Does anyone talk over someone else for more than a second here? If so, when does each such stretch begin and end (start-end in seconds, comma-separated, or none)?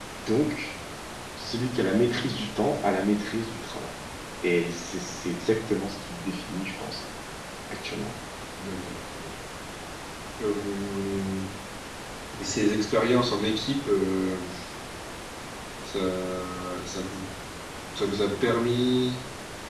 none